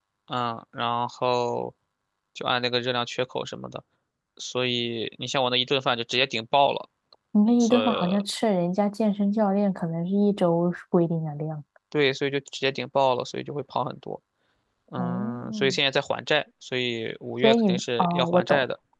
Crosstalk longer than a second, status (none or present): present